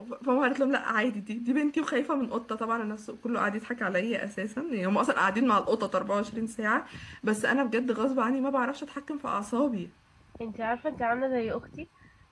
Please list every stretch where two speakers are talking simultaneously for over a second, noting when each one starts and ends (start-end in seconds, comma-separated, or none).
none